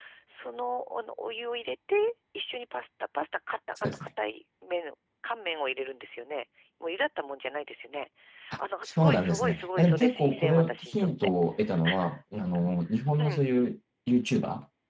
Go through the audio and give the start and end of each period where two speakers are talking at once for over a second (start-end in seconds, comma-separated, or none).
8.6-11.1